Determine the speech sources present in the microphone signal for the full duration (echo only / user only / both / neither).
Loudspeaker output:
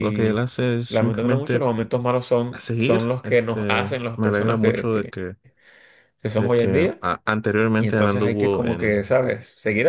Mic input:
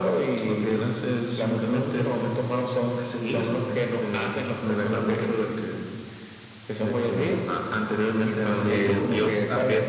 both